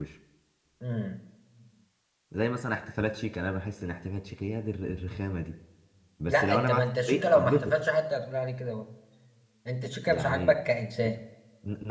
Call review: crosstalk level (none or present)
present